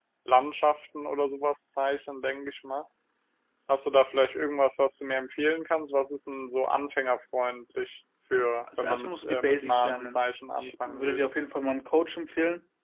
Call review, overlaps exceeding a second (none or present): present